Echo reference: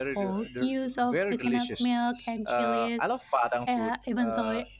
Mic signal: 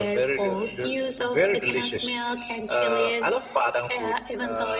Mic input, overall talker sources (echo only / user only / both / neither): echo only